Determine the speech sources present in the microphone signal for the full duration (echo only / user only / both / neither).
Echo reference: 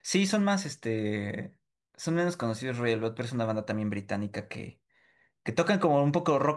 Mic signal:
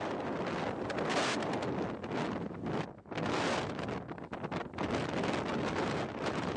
neither